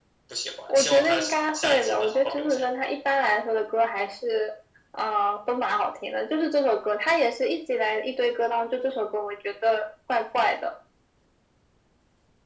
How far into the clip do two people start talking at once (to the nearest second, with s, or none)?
1 s